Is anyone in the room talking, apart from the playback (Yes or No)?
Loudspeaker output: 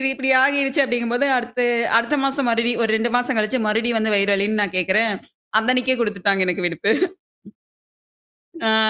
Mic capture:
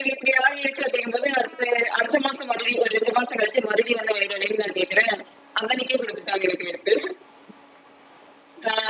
No